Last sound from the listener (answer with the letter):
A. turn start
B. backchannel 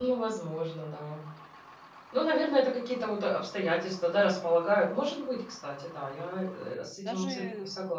A